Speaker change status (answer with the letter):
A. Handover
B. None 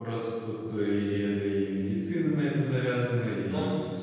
B